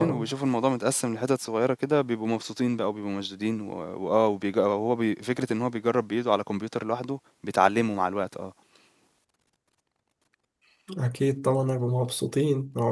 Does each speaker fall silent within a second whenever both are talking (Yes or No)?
Yes